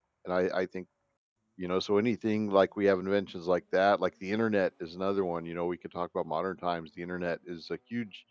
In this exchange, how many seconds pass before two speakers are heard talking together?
none

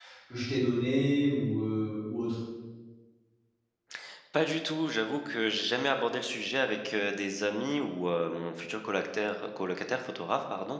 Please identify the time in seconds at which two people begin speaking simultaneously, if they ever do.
none

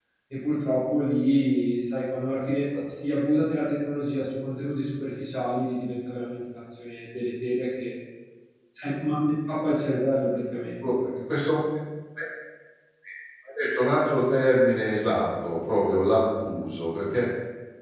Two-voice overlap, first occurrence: none

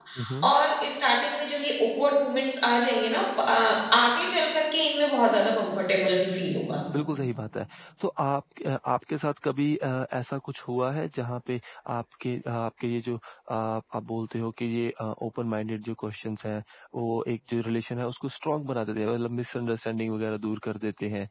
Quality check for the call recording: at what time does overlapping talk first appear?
none

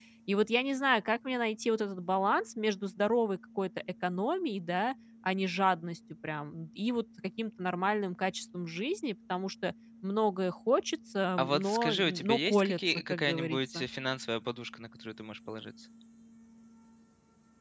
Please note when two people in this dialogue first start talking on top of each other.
11.4 s

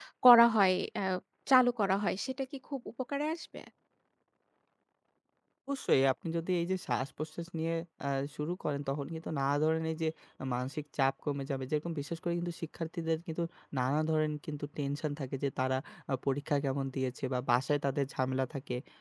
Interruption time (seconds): none

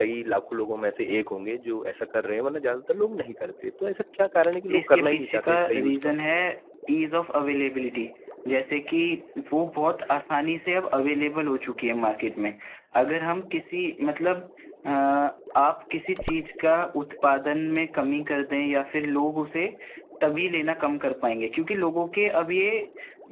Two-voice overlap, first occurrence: 4.7 s

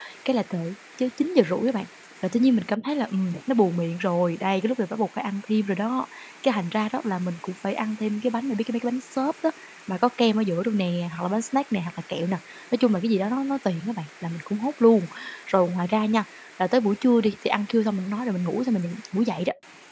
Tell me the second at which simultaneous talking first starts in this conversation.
none

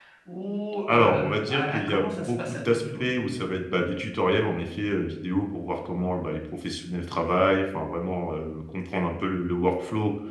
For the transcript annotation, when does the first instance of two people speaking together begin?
0.9 s

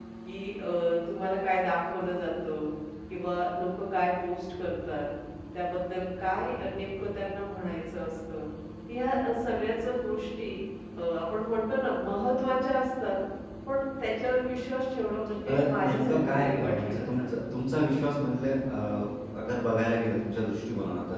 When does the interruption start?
15.5 s

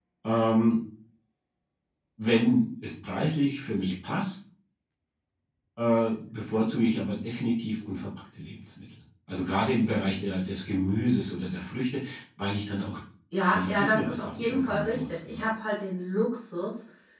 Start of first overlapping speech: 13.4 s

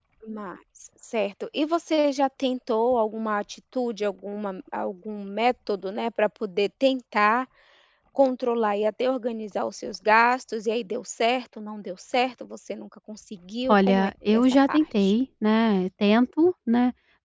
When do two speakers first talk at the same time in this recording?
13.7 s

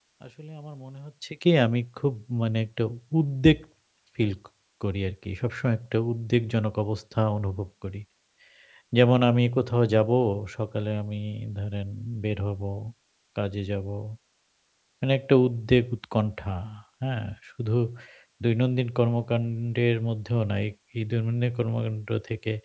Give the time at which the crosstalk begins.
none

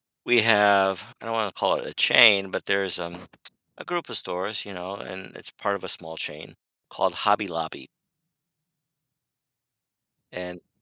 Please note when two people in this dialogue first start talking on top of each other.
none

